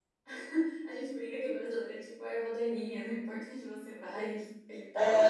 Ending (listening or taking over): taking over